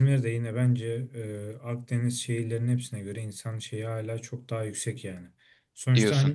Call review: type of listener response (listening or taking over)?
listening